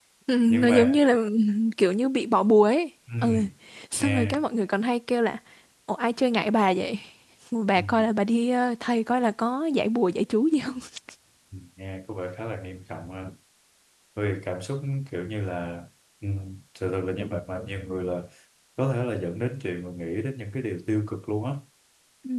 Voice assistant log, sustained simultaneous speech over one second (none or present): none